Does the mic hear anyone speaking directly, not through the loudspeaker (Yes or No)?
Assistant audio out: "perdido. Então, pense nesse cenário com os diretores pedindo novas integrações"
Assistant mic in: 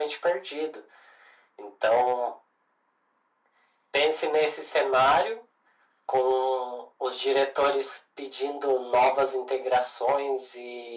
No